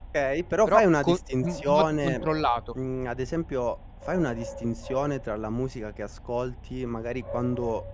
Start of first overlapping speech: 0.7 s

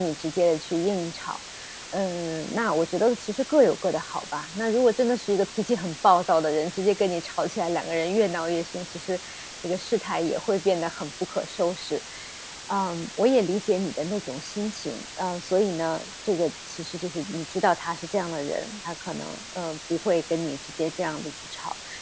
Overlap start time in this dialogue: none

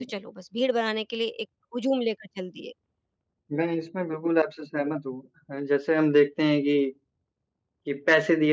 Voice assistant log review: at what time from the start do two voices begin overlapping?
none

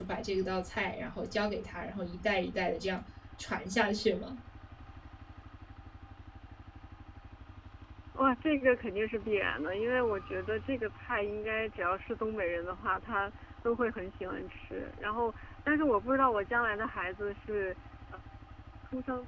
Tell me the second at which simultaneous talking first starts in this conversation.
none

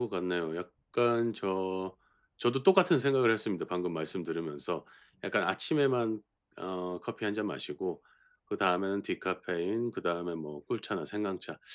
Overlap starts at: none

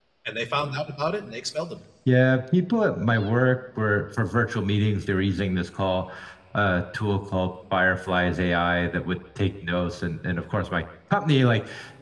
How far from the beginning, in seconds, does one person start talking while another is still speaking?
none

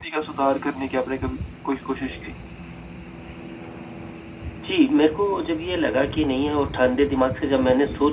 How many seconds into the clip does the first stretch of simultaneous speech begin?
none

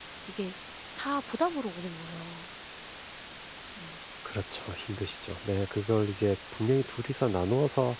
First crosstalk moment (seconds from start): none

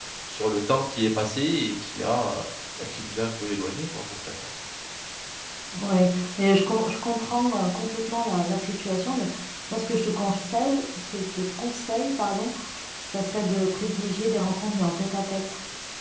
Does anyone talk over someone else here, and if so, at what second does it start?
none

